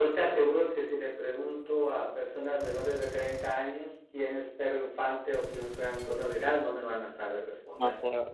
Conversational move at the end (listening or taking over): taking over